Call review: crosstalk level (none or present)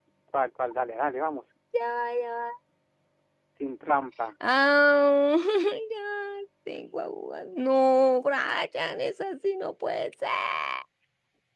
none